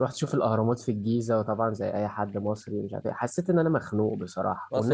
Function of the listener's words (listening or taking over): taking over